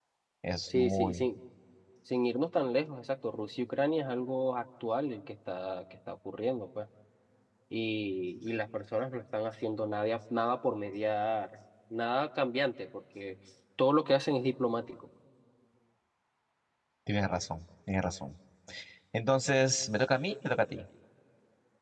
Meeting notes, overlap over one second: none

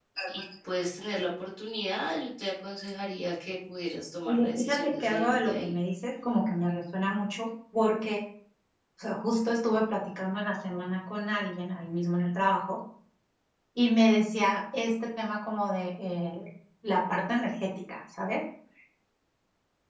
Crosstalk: present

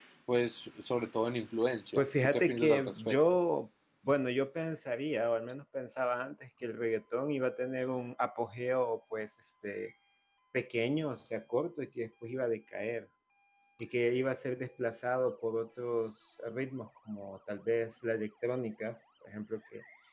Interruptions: present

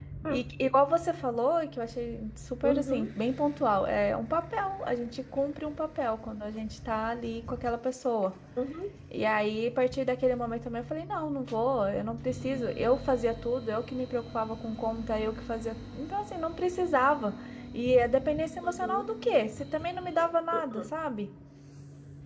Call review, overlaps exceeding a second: none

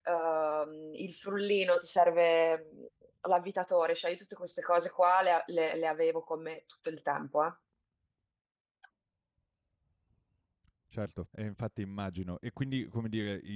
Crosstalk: none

